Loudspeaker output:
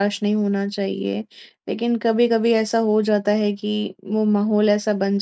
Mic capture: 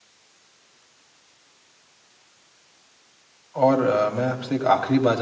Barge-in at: 3.6 s

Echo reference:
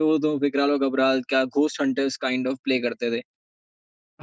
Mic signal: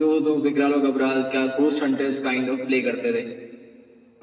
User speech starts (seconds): none

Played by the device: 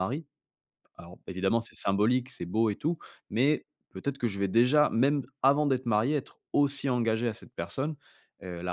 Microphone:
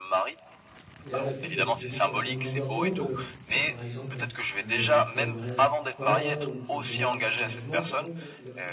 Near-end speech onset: 1.0 s

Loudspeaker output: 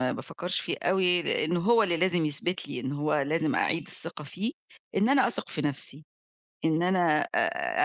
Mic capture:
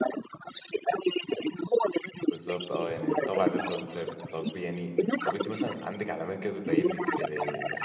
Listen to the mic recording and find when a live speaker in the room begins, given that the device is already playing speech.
2.3 s

